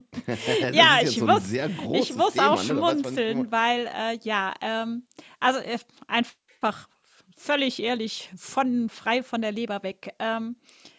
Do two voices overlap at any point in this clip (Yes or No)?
Yes